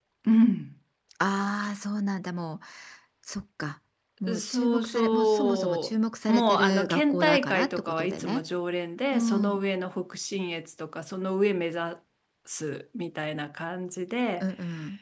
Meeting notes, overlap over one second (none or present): present